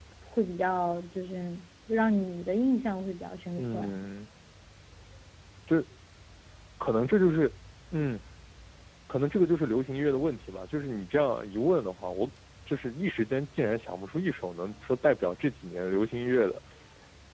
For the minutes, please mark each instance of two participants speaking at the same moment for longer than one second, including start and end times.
none

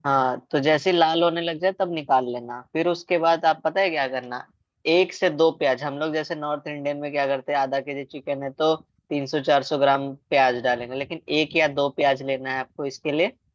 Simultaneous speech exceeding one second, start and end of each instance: none

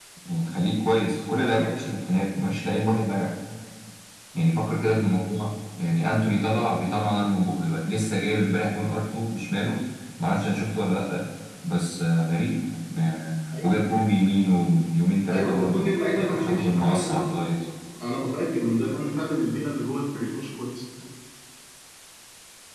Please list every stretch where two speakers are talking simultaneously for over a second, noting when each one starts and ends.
15.3-17.5

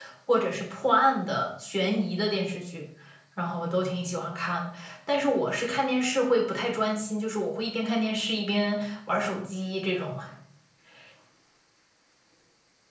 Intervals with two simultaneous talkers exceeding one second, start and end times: none

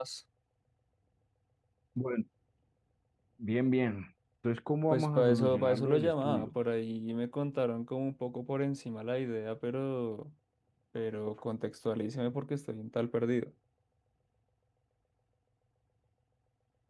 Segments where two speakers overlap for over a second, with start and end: 4.9-6.5

